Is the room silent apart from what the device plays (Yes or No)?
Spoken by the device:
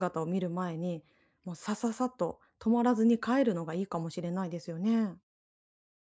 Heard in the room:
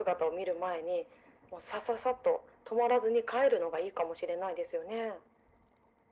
Yes